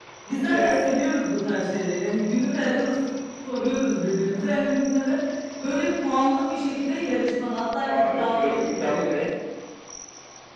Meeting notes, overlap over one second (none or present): present